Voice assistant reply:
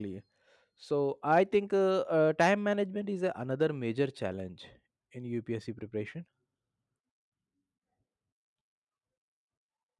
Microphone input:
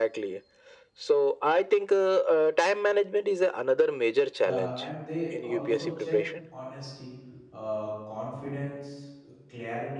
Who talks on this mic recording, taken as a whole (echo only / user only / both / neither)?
both